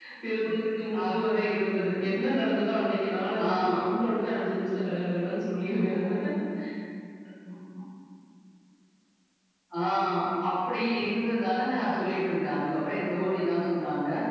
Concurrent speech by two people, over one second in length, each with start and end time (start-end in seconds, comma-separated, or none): none